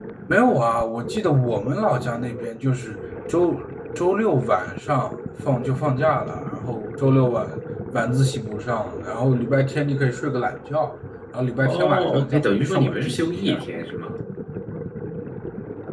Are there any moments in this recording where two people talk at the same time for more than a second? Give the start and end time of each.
11.6-13.4

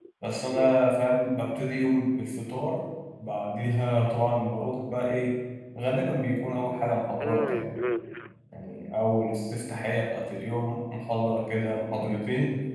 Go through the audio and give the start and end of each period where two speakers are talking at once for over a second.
none

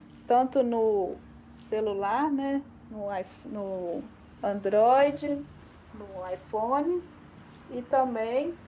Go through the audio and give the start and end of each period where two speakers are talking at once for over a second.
none

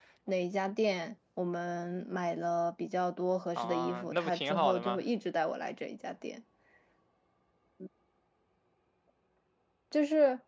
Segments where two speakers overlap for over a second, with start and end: 3.6-5.0

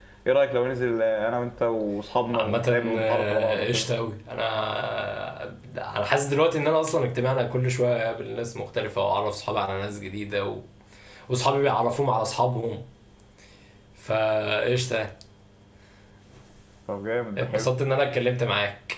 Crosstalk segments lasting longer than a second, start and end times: 2.3-3.9

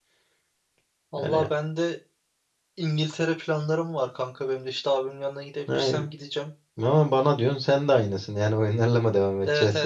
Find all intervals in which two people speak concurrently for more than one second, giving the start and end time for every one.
none

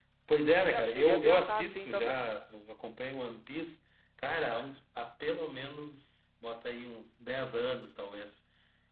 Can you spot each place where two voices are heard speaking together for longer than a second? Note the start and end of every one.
0.7-2.3

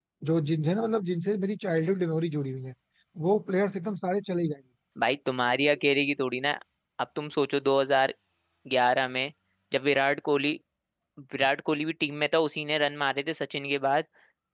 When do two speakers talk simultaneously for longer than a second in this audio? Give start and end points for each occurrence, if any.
none

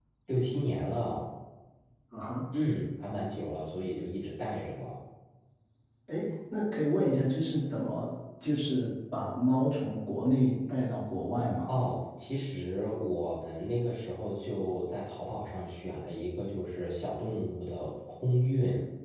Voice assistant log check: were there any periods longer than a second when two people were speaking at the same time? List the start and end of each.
none

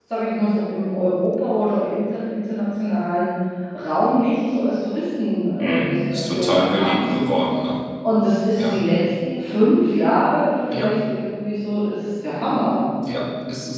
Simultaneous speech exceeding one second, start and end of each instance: 5.6-7.1

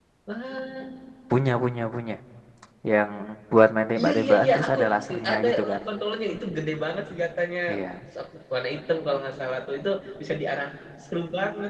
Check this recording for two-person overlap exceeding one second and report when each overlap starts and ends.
4.0-5.8

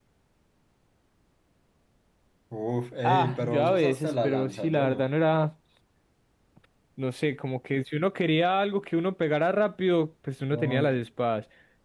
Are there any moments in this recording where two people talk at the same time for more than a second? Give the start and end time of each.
3.0-5.0

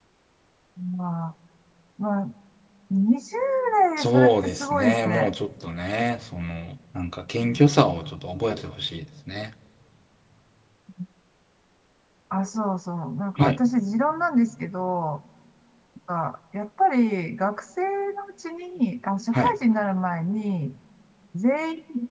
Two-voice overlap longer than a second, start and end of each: 4.0-5.3

